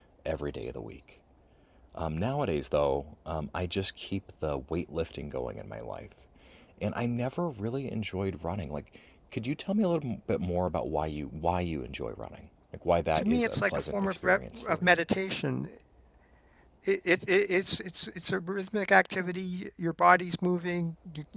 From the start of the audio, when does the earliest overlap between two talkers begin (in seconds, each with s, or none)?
13.1 s